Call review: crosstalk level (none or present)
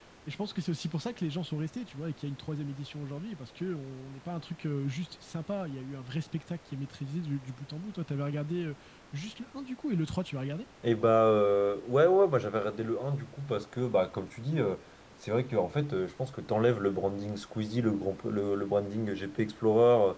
none